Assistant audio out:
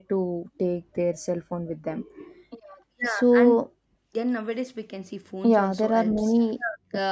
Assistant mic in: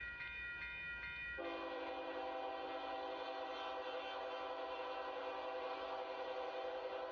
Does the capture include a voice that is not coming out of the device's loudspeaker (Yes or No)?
No